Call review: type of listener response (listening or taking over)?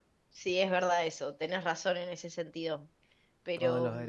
taking over